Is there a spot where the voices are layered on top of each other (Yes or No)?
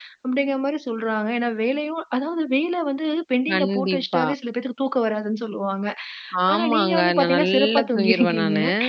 Yes